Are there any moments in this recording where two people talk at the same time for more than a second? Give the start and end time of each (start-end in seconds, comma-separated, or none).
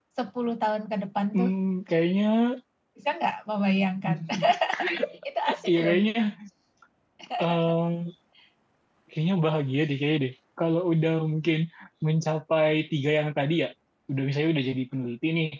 none